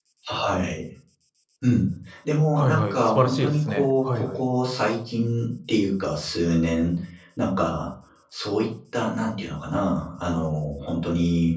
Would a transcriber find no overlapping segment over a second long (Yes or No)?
No